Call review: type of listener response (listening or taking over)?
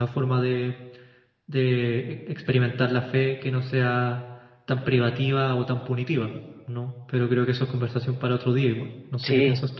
taking over